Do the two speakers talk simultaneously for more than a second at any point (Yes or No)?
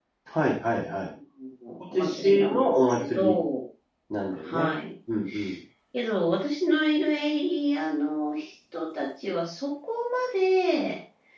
Yes